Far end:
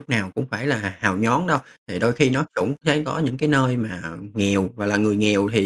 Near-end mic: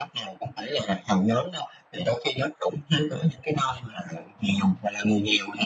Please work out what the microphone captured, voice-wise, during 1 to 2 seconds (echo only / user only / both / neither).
echo only